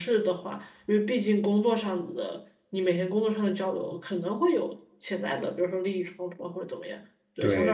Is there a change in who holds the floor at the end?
Yes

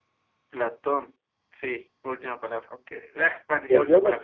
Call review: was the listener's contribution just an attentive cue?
No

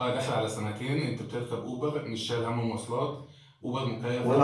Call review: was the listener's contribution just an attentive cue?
No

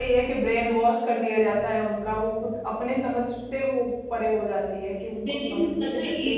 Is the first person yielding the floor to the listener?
Yes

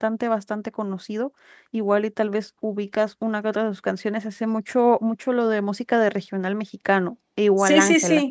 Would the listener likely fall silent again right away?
No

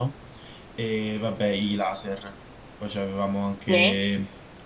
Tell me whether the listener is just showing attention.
Yes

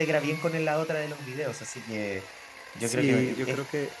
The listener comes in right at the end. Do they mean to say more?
Yes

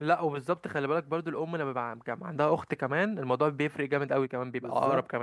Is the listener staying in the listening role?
No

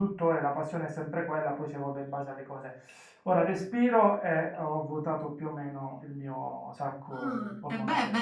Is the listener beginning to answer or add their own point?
Yes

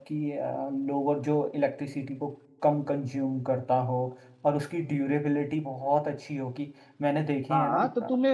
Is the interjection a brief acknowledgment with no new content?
No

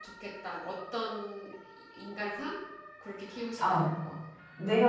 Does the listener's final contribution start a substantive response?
Yes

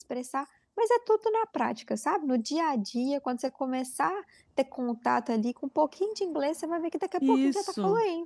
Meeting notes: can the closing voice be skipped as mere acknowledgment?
No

